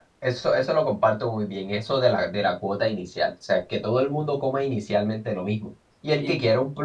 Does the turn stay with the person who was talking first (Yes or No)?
Yes